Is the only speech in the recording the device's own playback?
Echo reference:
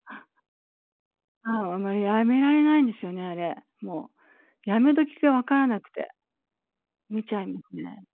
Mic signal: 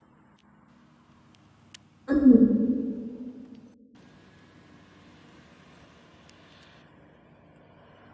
No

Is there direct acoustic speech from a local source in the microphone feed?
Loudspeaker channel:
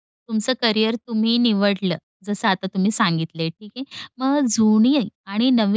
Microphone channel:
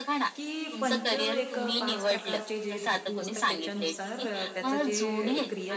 Yes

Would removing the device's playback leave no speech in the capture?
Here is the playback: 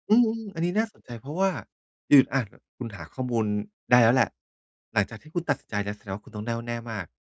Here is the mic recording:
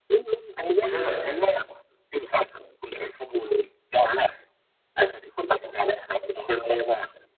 No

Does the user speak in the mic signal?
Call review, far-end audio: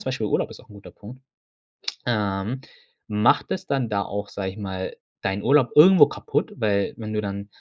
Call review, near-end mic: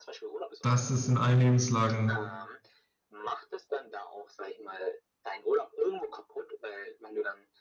Yes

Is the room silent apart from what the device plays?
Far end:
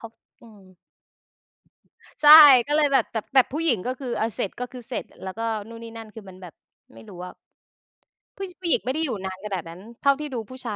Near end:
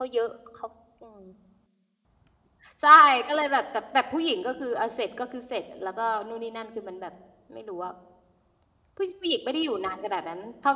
Yes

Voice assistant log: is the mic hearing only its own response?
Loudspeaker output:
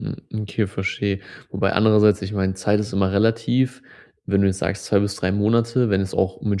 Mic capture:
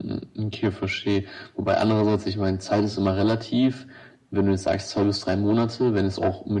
Yes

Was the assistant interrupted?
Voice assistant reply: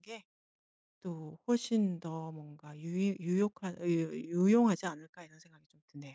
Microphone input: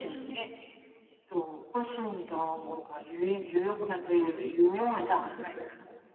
No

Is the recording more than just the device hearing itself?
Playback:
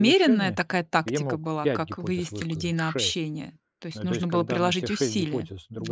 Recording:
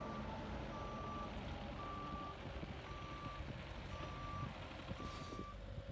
No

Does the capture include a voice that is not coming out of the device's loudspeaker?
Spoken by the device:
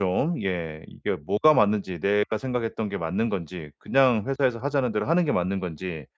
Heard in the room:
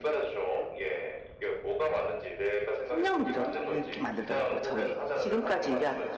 Yes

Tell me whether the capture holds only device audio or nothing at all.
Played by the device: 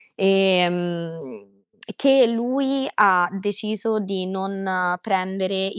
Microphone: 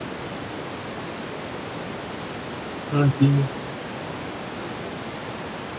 No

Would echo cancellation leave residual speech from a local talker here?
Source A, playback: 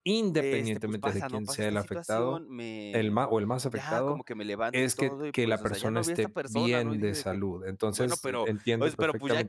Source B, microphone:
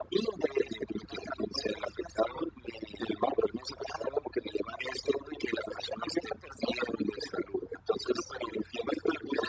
No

